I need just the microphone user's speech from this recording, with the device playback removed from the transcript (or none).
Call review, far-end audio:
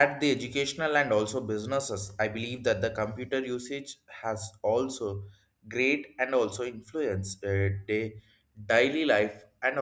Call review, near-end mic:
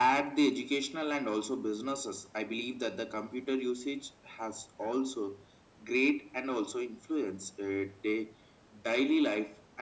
none